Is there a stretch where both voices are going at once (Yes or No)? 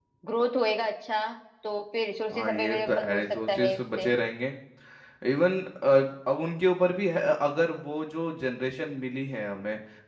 Yes